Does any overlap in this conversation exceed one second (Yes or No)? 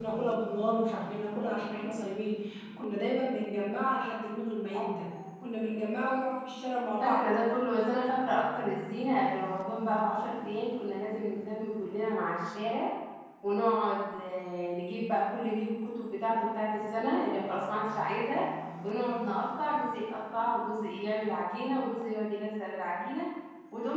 No